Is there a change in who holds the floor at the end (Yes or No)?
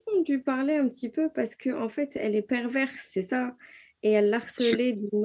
No